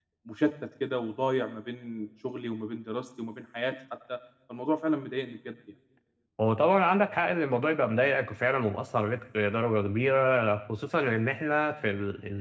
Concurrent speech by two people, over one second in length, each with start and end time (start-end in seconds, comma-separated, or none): none